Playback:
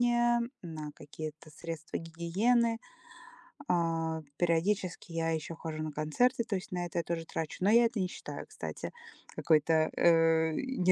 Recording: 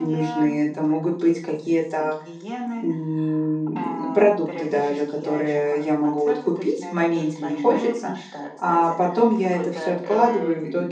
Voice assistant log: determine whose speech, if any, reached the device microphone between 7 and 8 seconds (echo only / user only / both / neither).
both